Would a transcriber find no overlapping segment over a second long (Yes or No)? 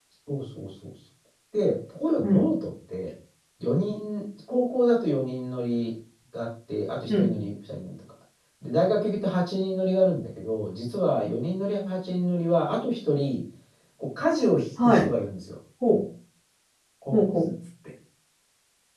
Yes